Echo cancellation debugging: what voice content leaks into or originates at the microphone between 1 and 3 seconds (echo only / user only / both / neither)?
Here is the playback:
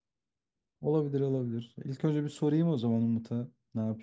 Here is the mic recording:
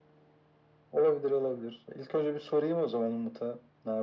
echo only